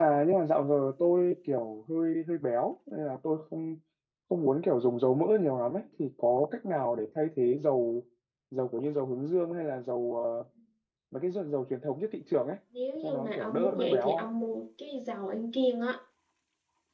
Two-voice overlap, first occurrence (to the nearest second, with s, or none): 13 s